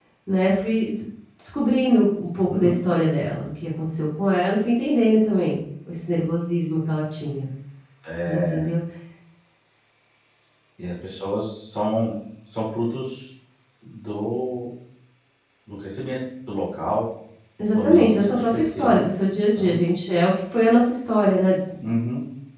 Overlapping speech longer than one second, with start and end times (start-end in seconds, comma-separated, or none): 17.7-19.0